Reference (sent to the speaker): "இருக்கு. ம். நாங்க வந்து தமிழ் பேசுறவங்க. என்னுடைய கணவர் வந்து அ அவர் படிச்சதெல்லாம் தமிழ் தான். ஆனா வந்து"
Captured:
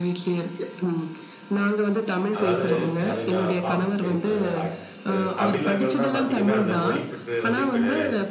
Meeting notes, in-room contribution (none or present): present